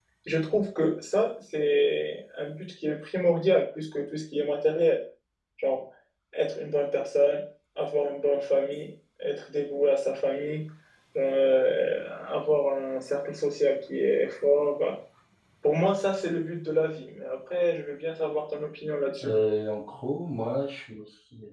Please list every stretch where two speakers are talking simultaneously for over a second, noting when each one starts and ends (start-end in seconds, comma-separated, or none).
none